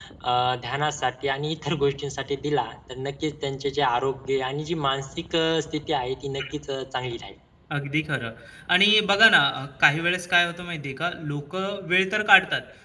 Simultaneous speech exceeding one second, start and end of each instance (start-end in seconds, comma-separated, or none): none